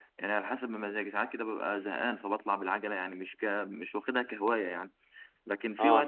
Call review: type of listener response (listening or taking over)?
listening